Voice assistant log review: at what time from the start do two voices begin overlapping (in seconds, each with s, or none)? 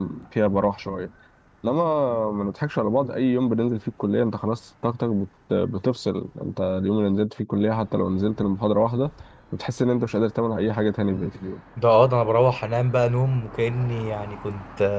none